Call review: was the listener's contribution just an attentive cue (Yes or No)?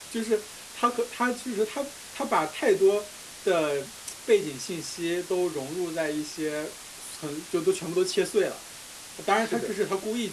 Yes